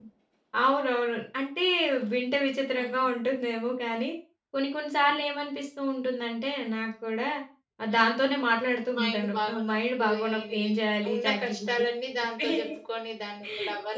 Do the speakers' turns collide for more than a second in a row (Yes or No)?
Yes